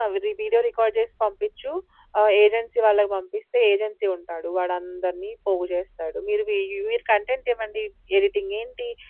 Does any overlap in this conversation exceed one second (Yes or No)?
No